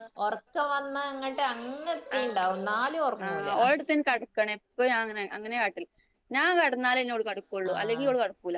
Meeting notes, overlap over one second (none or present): none